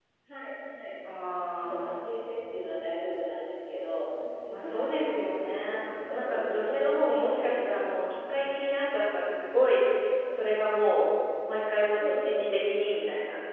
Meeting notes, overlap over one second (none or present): present